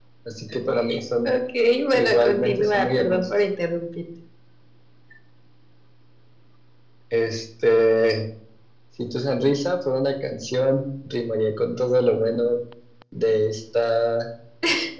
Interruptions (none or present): present